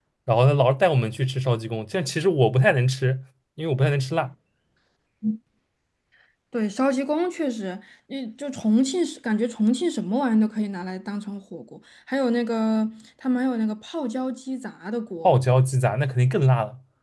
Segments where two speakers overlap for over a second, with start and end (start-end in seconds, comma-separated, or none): none